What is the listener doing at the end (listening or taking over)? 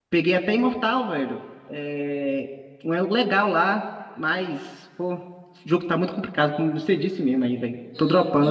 taking over